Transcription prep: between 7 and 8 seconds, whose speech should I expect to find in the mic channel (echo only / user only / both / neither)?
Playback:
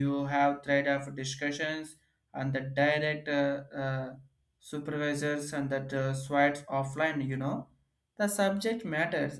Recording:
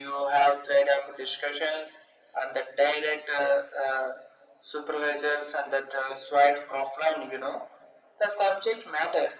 echo only